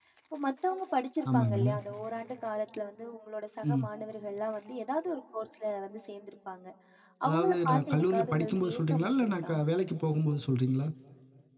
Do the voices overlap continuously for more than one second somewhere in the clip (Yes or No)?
Yes